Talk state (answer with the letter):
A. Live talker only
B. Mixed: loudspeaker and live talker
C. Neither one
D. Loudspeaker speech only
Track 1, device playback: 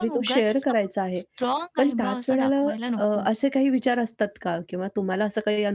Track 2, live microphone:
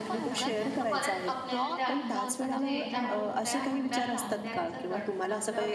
B